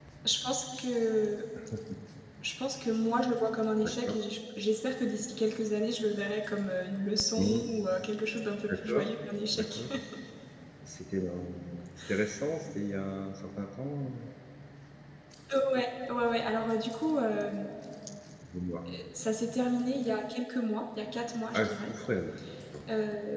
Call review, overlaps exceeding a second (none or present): none